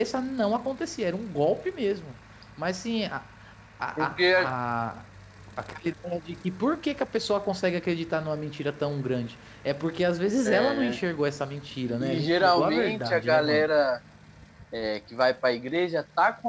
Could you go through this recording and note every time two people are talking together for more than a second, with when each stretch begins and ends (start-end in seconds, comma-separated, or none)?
12.0-13.7